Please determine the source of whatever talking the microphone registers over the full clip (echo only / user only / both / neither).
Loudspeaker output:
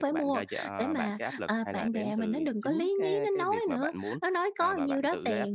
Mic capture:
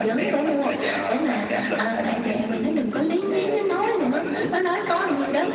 echo only